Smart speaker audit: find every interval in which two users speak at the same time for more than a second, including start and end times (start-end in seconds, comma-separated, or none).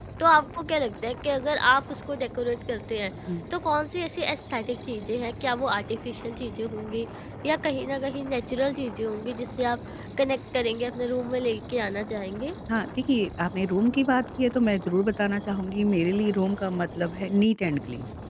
none